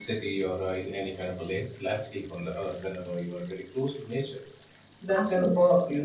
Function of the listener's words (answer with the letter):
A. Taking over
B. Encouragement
B